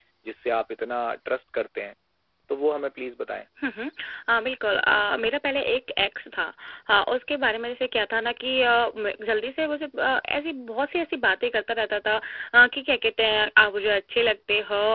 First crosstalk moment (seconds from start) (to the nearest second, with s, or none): none